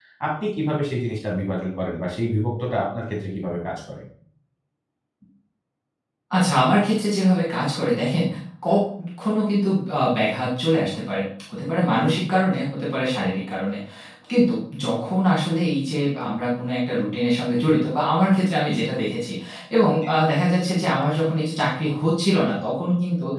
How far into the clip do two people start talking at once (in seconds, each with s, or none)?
none